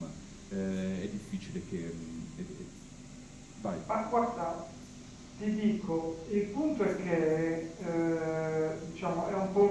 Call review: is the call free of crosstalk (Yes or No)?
Yes